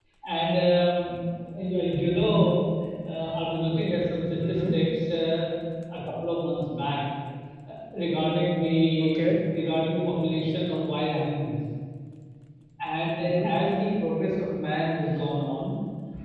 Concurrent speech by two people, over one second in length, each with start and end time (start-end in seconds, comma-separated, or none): none